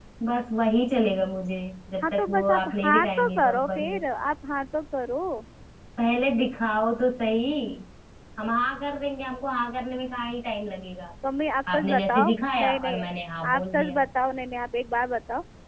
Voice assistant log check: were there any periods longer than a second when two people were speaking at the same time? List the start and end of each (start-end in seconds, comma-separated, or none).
2.0-3.8, 11.7-13.1